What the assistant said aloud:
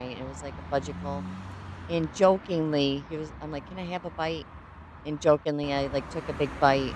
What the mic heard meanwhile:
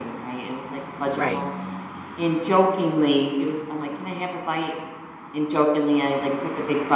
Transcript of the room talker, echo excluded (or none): Right.